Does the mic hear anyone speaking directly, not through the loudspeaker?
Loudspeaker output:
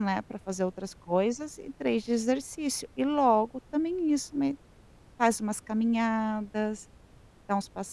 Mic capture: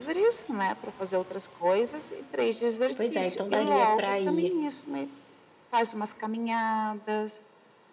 Yes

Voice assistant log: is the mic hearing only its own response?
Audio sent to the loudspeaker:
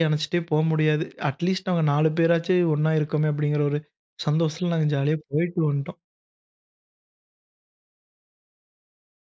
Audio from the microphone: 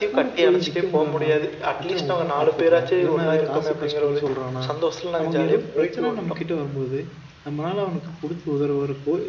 No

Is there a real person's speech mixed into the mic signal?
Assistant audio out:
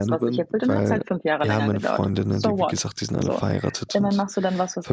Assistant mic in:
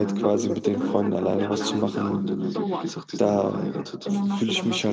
Yes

